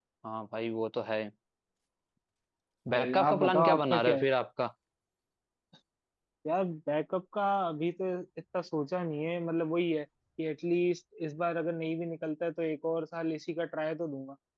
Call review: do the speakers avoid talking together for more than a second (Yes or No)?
No